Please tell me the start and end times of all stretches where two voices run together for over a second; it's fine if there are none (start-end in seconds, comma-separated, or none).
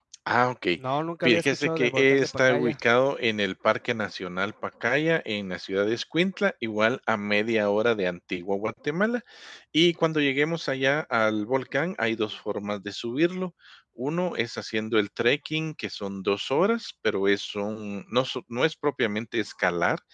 1.2-2.7